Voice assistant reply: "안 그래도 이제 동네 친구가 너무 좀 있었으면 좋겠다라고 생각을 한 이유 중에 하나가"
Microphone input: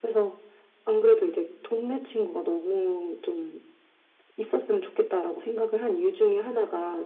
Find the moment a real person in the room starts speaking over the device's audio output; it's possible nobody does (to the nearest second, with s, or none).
none